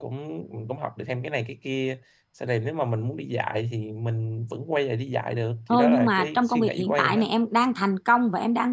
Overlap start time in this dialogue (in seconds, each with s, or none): 5.7 s